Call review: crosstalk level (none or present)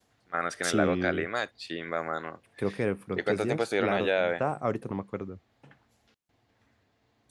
present